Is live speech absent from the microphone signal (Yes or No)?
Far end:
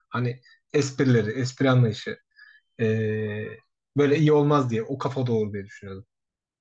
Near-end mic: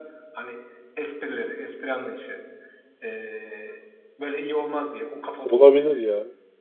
No